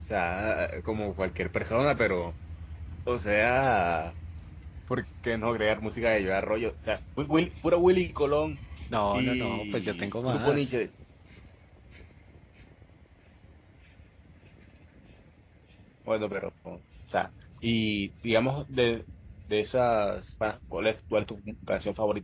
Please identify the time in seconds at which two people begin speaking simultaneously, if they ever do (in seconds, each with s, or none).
9.1 s